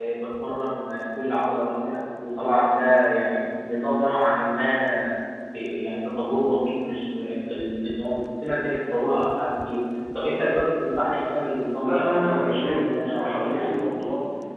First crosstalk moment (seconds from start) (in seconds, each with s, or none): 11.8 s